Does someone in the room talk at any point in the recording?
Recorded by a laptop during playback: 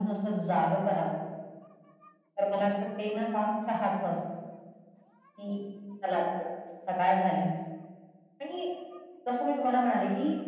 No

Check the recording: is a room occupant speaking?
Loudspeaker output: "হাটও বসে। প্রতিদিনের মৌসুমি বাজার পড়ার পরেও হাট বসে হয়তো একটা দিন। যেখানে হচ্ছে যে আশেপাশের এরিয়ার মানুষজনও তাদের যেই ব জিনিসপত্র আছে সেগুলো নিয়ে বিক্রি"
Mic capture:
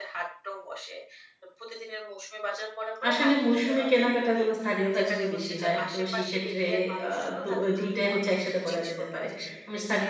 Yes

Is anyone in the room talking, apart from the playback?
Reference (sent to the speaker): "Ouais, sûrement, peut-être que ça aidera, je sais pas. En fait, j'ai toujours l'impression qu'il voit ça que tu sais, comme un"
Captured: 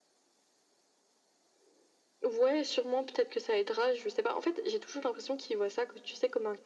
No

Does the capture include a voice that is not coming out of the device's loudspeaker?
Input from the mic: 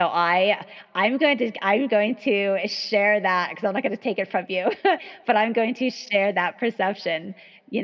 Yes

